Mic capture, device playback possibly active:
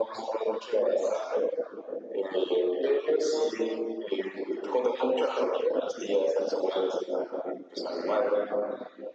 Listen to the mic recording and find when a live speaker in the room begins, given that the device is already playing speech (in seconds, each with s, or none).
none